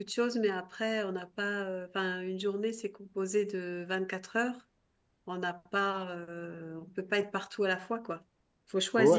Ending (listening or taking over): taking over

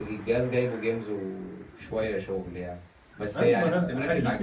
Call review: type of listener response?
taking over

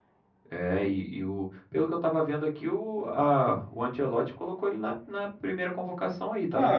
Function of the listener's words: taking over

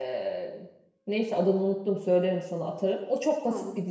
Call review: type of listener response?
listening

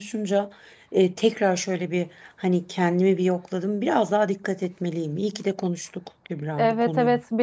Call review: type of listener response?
taking over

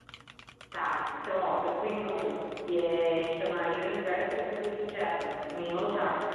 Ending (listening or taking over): taking over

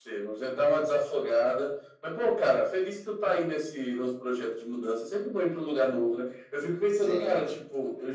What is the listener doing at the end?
listening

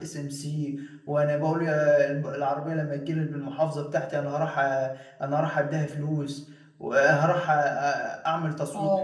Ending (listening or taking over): listening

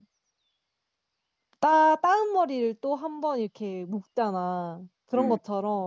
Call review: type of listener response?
listening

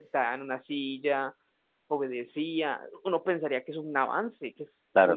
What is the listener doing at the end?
taking over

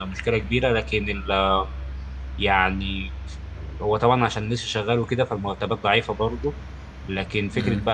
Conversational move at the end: listening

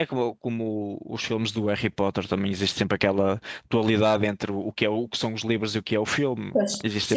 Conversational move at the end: taking over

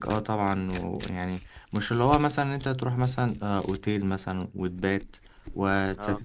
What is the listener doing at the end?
listening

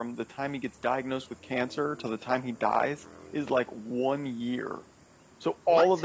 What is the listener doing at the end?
listening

